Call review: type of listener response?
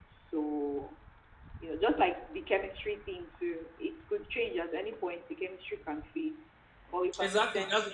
taking over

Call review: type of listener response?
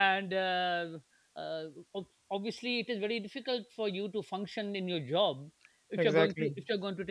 listening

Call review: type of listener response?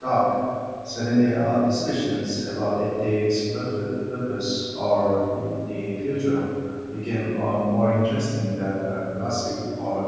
taking over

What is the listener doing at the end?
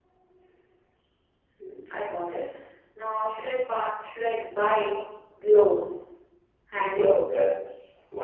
taking over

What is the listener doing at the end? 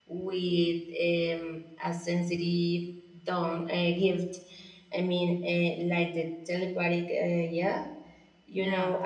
listening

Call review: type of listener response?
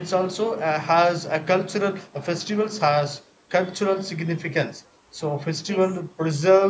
listening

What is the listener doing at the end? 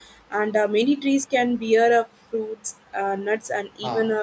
listening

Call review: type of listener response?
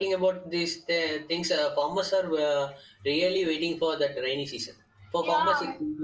listening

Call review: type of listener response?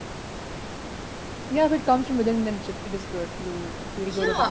taking over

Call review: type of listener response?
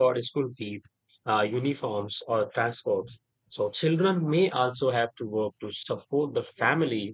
listening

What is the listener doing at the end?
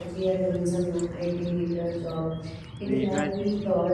listening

